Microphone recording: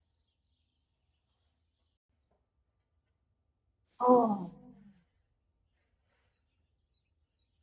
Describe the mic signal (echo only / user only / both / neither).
user only